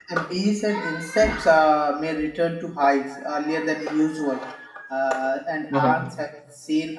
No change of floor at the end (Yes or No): Yes